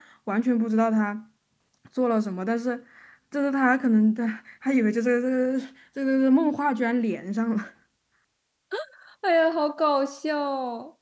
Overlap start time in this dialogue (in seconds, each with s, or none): none